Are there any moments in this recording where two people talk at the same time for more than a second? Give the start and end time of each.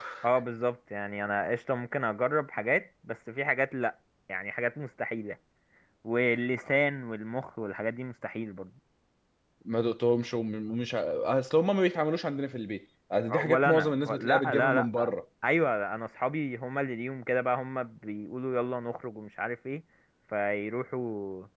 13.4-15.1

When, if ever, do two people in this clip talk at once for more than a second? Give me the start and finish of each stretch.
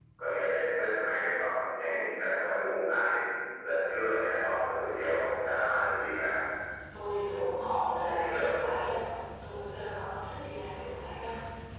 none

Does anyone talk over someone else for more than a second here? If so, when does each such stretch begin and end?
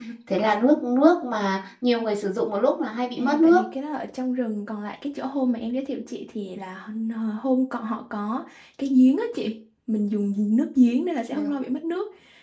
none

